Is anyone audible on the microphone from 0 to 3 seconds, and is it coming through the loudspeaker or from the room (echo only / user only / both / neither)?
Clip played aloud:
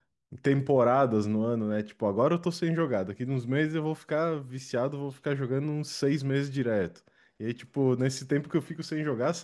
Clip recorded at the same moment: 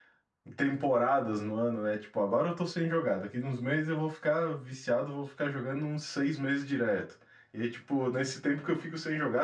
echo only